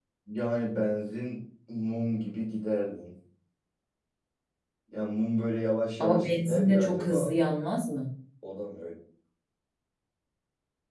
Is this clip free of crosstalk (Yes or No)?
No